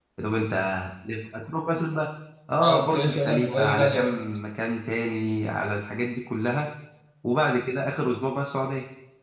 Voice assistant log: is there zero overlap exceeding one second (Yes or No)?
No